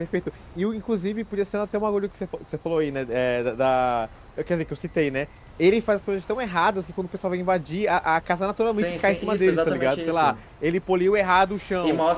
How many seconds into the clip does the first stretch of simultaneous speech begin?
8.7 s

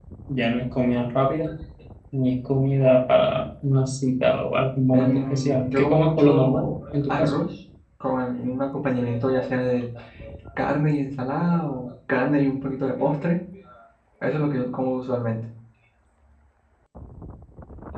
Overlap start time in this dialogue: 4.9 s

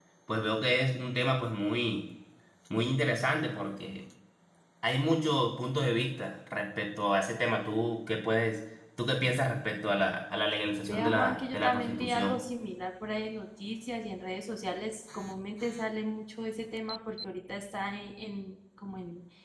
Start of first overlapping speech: 10.9 s

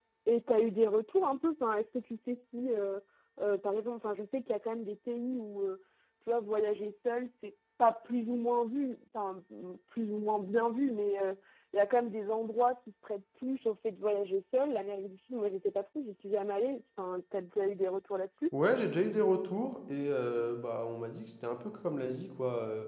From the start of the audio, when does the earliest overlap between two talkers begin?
none

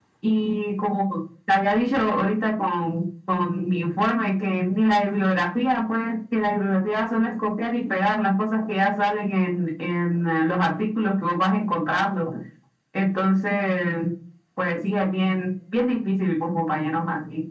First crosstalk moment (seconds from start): none

